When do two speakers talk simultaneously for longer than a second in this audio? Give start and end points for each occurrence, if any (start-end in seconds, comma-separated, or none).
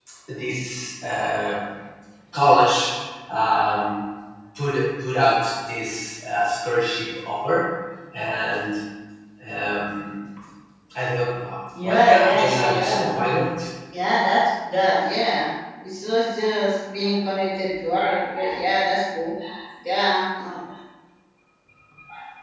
11.8-13.0